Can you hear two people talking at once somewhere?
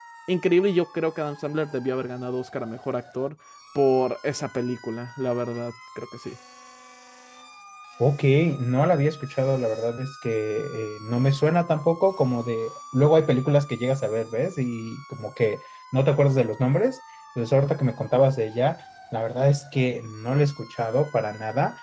No

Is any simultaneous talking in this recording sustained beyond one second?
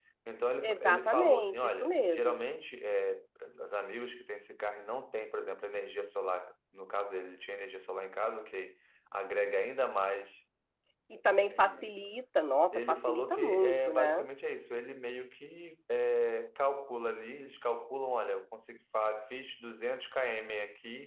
Yes, from 0.6 s

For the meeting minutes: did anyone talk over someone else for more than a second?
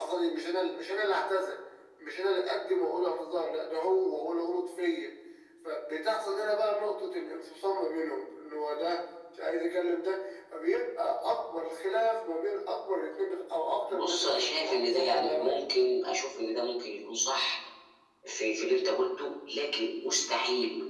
Yes, from 13.9 s

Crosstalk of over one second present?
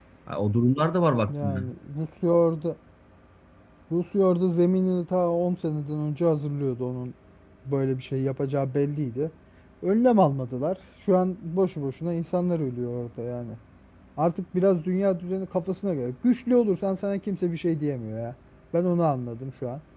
No

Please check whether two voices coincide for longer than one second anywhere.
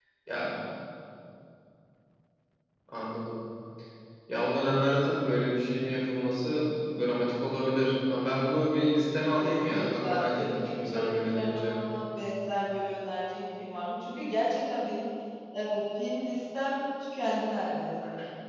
Yes, from 9.4 s

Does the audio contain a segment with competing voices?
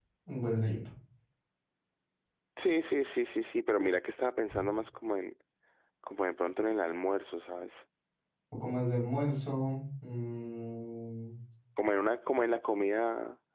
No

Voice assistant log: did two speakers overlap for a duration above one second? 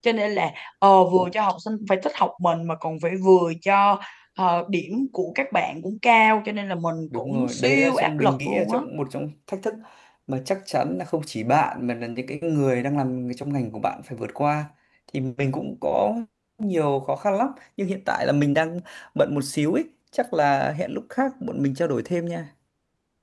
Yes, from 7.1 s

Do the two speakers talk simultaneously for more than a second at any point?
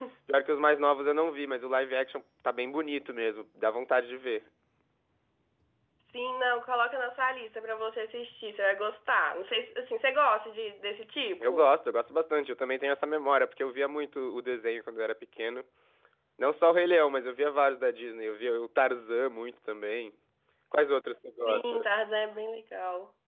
No

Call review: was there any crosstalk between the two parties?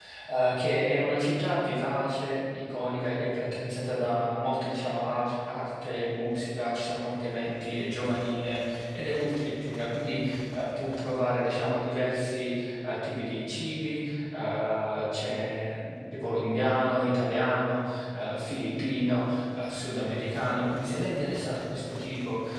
No

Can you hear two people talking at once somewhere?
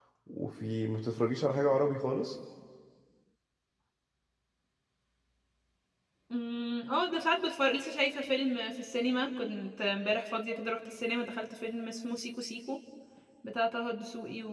No

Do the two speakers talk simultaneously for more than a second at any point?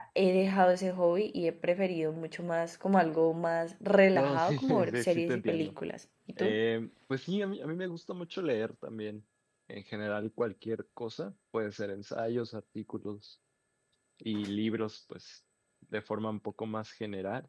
Yes, from 4.1 s

